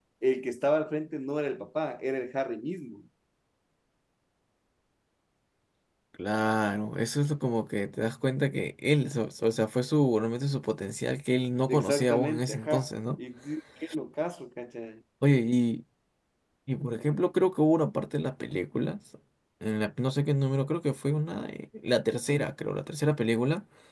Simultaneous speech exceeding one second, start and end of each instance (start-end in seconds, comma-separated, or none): 11.7-12.9